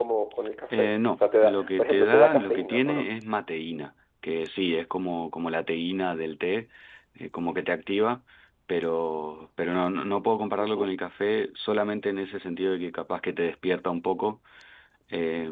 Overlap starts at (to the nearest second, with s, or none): 1 s